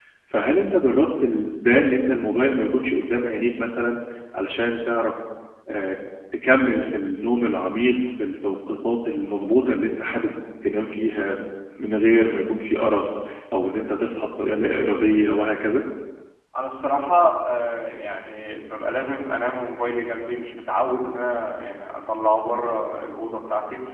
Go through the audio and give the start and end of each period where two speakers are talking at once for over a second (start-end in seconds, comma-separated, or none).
none